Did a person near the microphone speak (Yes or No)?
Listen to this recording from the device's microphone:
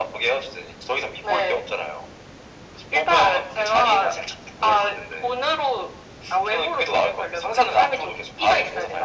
No